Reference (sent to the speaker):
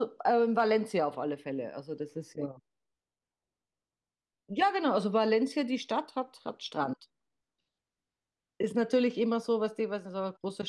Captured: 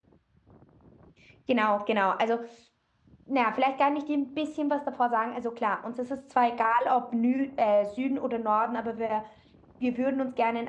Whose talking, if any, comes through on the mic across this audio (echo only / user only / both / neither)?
user only